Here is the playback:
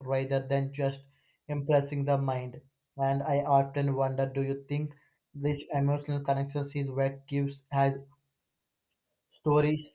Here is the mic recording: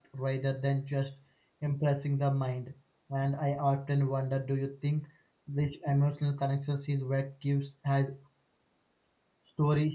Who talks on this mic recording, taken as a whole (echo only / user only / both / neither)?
echo only